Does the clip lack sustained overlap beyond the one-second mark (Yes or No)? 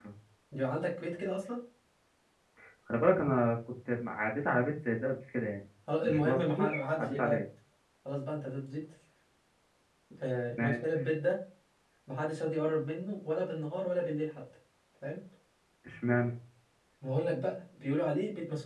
No